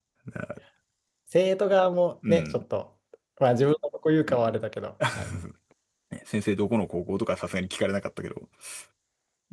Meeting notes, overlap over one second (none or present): none